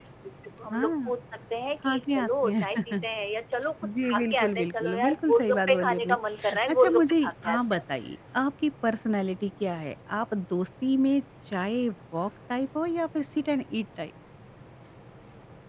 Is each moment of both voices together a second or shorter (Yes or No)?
No